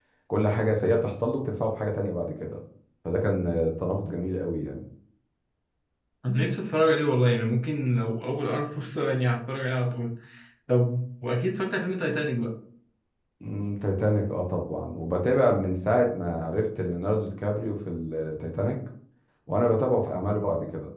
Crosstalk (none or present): none